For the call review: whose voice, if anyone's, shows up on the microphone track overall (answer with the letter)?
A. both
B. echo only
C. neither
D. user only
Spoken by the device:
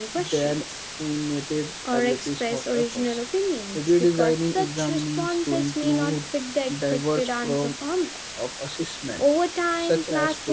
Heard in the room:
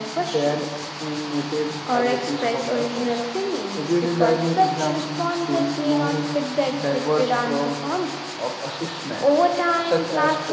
B